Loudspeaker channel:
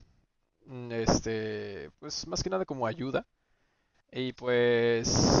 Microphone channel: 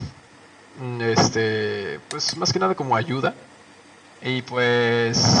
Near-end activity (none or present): none